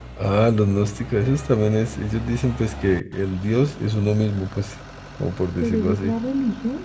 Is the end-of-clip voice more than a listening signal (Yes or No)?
Yes